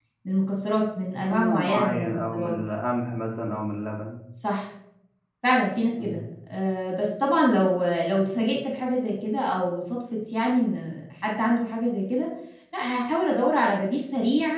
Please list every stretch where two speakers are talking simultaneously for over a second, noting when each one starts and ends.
1.3-2.6

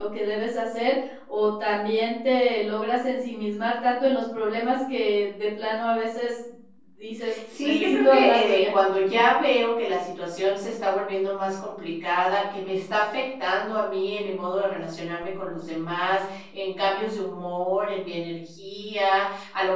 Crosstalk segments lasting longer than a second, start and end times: 7.5-8.7

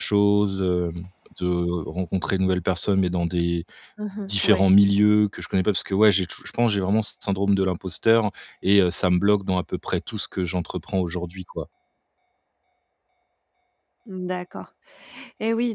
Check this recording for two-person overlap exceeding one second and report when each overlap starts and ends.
none

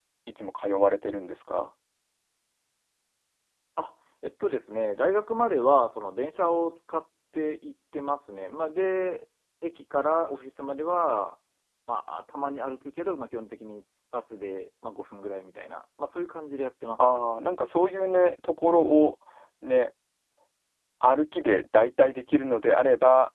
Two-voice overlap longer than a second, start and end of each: none

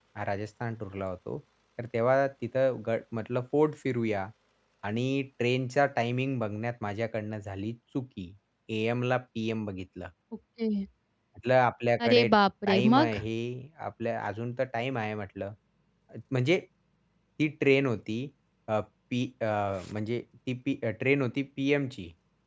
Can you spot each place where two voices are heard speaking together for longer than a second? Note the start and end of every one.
none

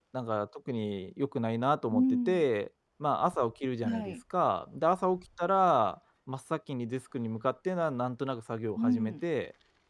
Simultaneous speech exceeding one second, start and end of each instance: none

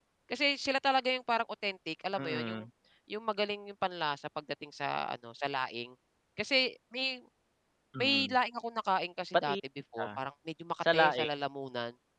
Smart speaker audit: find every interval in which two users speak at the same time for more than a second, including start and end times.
none

